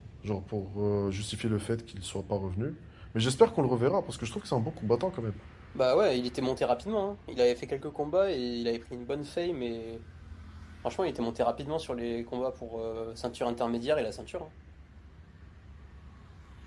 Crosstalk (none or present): none